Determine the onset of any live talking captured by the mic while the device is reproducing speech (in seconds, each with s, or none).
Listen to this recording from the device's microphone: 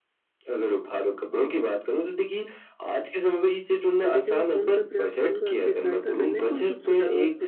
4.0 s